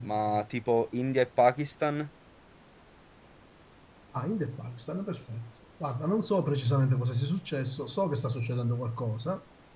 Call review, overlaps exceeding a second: none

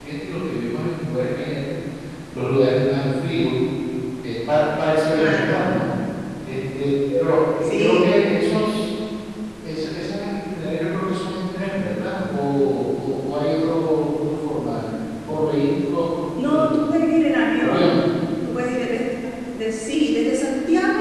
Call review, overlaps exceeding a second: none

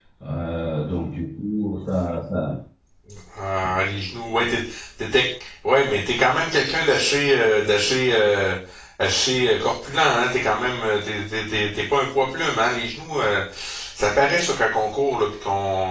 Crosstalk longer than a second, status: none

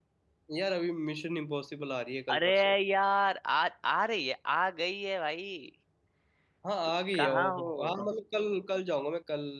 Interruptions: present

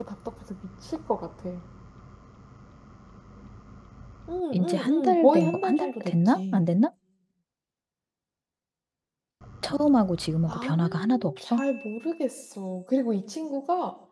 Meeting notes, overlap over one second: present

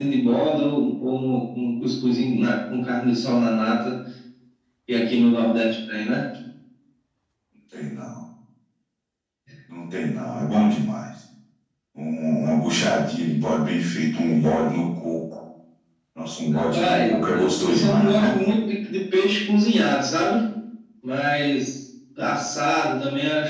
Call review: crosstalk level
present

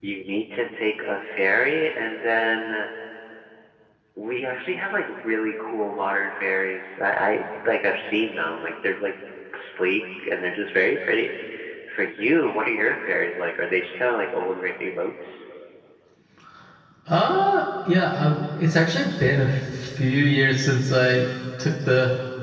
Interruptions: none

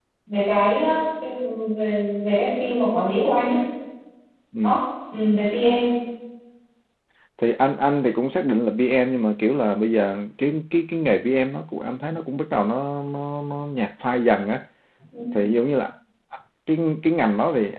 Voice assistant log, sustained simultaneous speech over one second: none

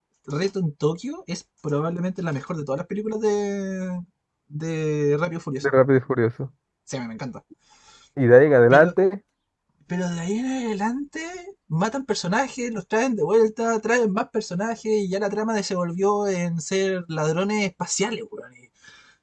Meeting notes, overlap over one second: none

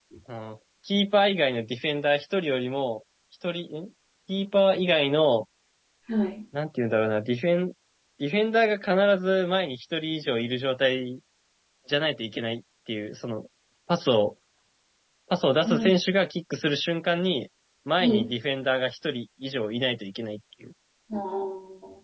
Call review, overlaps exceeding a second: none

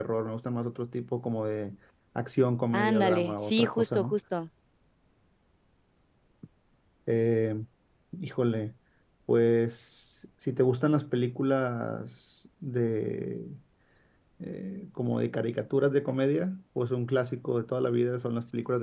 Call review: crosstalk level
present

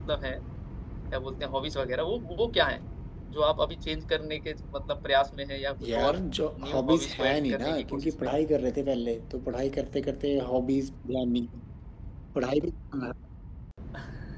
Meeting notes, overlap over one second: present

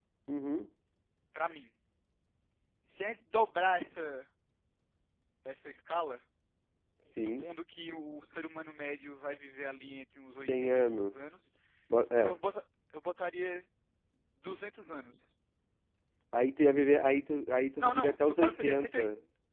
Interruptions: present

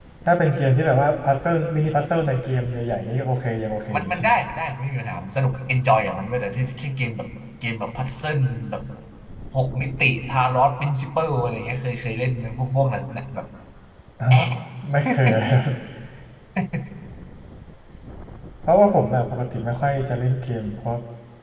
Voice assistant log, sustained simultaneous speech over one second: none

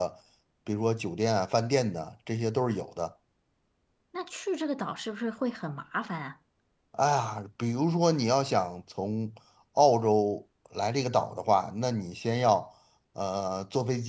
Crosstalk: none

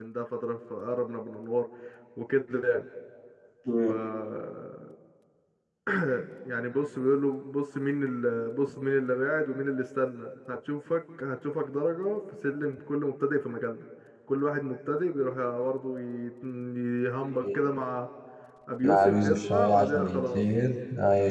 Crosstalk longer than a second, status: present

